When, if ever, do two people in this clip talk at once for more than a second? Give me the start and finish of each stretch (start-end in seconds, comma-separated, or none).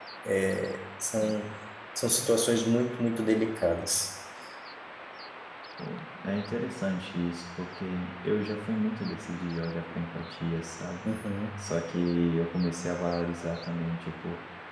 none